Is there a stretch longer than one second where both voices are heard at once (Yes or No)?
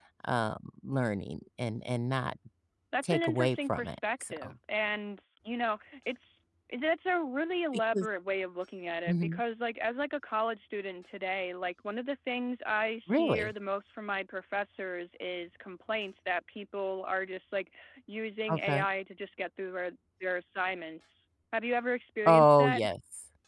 Yes